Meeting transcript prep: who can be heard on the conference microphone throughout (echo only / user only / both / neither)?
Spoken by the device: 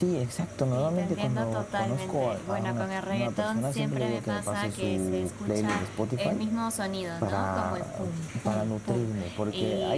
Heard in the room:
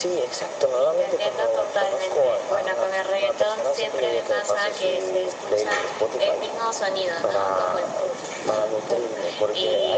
echo only